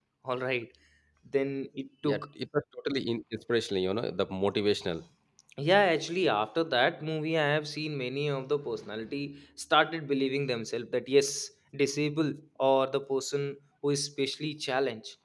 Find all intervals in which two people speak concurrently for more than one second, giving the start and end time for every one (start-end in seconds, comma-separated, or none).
none